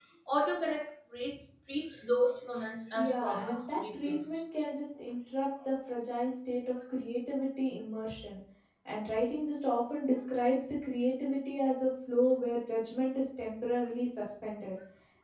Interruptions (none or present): present